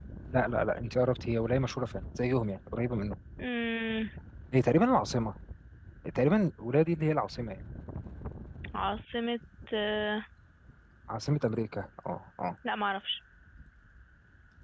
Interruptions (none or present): none